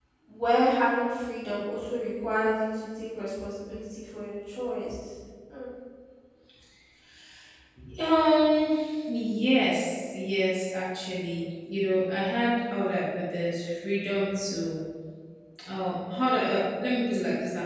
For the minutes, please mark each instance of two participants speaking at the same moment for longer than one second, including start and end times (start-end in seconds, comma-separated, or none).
none